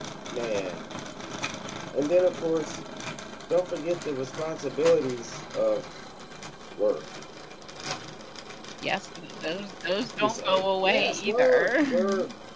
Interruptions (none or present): present